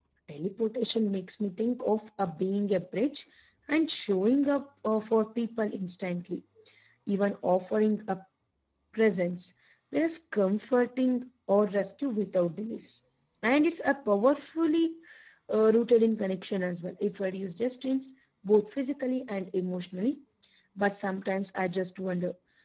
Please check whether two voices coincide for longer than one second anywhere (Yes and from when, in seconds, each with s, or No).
No